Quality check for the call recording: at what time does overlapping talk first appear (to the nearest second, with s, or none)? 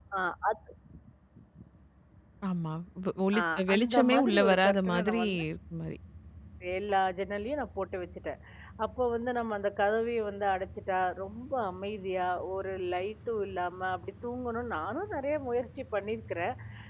3 s